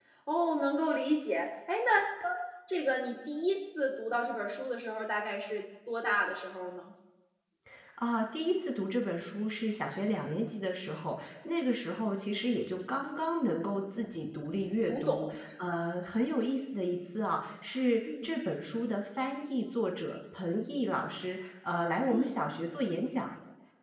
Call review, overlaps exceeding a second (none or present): none